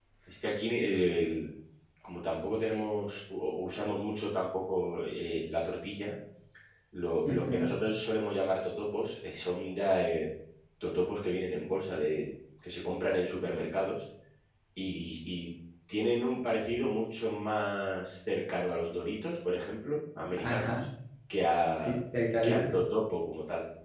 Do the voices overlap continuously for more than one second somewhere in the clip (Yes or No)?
No